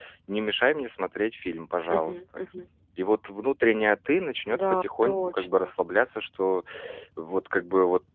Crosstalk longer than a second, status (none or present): present